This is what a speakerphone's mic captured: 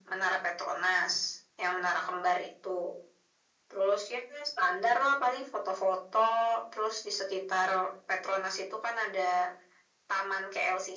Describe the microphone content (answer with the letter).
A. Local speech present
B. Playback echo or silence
B